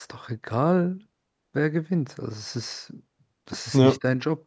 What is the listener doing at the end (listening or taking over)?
listening